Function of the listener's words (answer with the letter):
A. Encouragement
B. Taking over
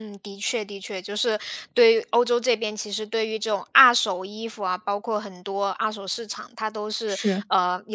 A